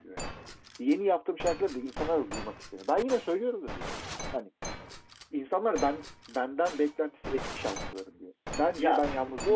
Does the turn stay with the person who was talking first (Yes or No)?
No